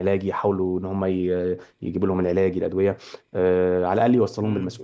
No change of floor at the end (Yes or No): No